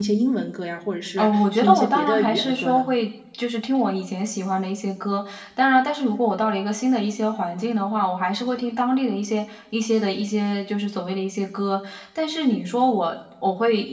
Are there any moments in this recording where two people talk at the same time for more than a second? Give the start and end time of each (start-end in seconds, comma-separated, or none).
1.2-2.9